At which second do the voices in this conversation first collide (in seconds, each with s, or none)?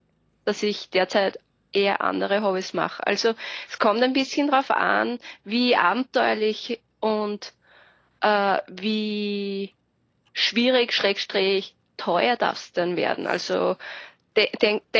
none